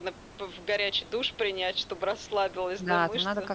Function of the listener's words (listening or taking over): taking over